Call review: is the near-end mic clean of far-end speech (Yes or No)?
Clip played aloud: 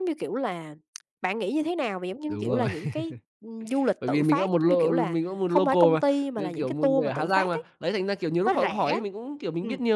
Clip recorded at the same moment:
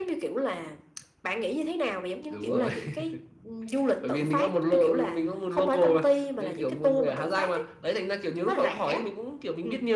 No